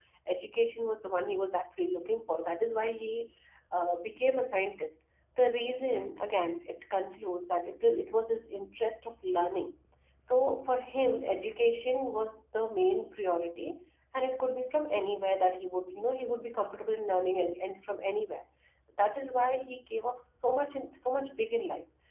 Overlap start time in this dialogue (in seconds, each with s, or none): none